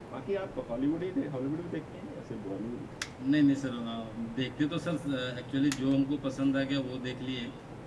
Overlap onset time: none

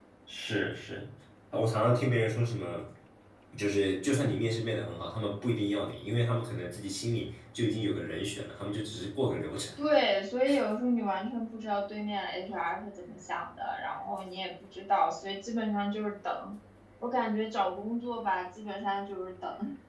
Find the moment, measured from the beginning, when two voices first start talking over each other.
none

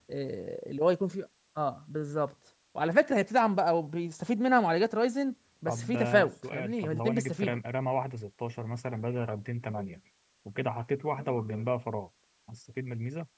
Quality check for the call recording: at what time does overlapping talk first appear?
5.7 s

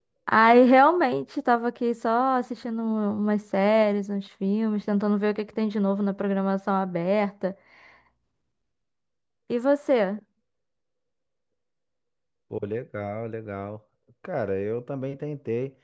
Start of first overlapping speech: none

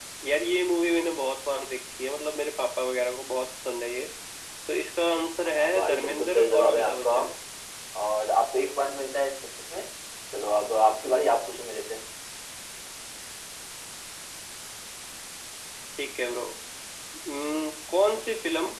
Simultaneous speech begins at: 5.6 s

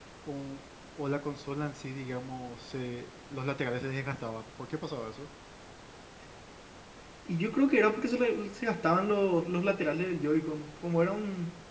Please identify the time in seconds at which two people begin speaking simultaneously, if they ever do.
none

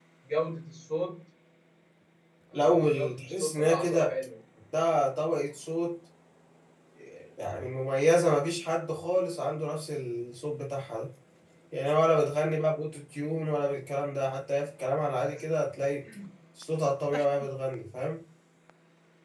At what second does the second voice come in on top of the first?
2.5 s

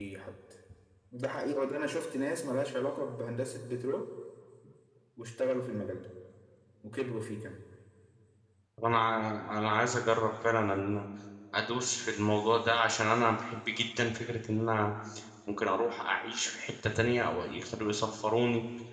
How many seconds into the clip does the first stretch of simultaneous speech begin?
none

